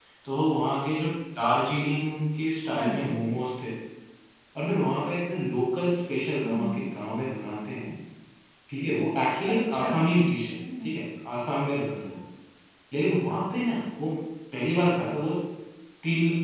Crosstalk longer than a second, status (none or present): none